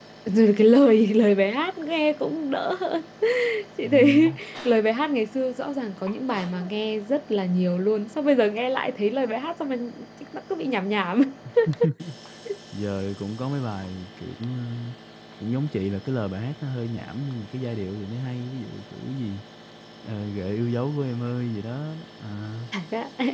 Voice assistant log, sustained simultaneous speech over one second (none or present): none